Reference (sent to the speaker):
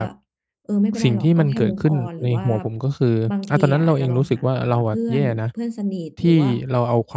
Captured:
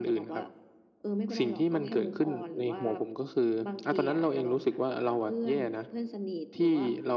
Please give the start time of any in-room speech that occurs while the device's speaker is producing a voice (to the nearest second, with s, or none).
none